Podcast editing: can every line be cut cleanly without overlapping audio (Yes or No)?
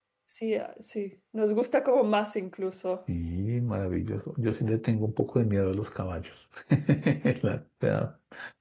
Yes